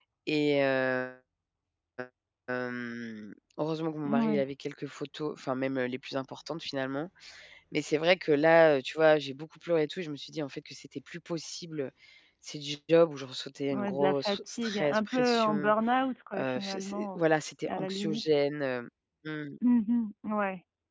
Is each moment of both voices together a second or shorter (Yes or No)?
No